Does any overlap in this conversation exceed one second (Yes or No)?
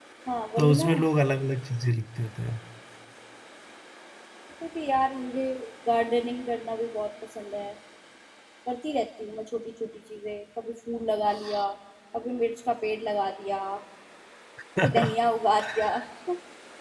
No